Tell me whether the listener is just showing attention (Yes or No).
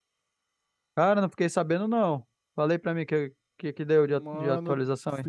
No